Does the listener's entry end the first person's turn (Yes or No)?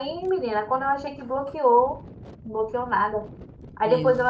No